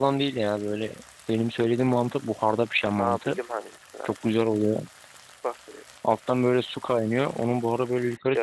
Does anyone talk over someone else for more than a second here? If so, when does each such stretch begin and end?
none

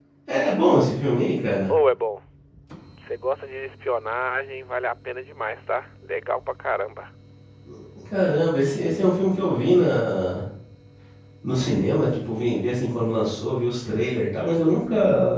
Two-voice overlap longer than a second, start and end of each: none

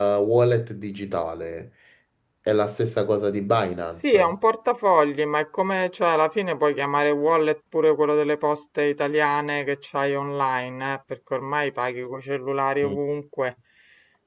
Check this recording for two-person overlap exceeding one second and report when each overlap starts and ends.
none

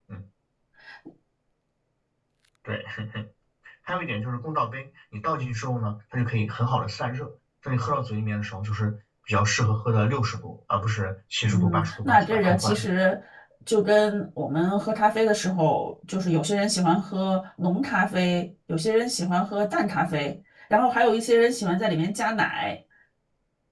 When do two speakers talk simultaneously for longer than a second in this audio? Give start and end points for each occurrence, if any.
11.4-12.8

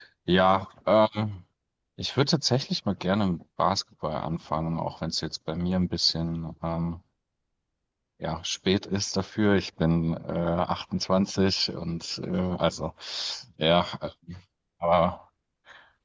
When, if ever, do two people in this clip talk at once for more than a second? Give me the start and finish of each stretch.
none

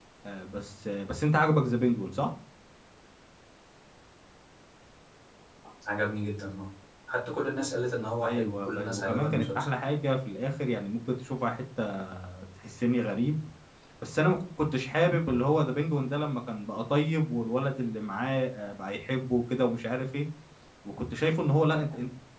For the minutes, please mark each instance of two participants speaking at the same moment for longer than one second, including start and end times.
8.2-9.7

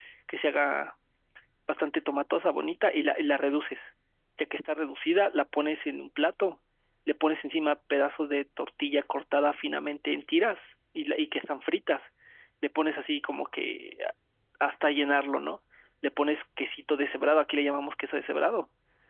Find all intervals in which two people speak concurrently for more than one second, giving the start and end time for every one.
none

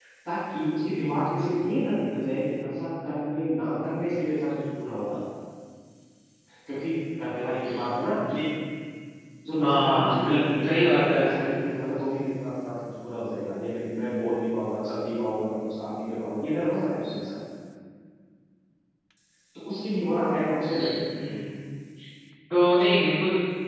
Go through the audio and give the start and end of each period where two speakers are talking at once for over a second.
9.6-11.4

